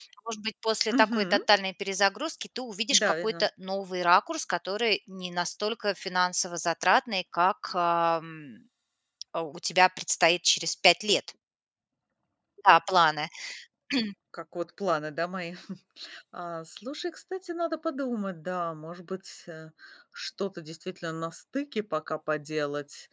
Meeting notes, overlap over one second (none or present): none